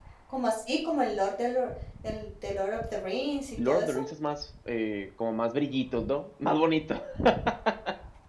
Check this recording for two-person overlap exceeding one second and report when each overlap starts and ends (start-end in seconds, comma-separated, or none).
none